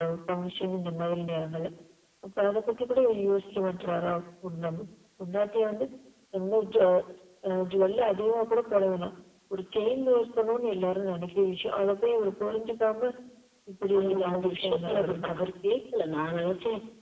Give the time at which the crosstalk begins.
14.0 s

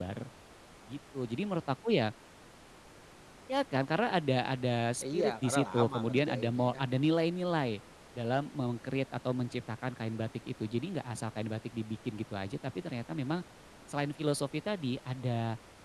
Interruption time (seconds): 5.0 s

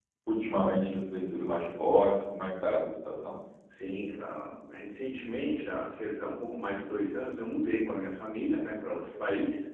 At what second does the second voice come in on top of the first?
none

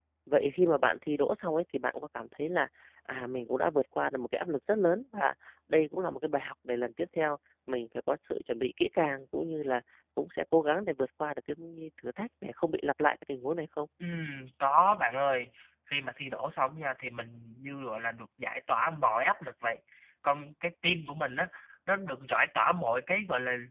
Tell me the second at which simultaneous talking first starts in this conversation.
none

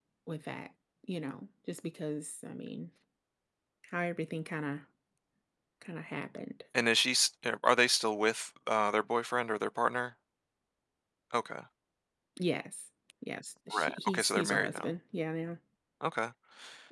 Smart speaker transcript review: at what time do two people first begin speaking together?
13.7 s

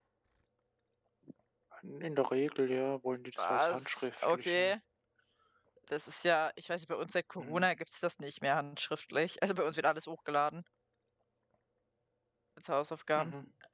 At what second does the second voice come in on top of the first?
3.4 s

